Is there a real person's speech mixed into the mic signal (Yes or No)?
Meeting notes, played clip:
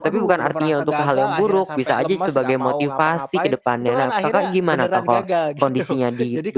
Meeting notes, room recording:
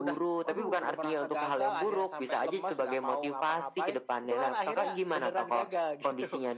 No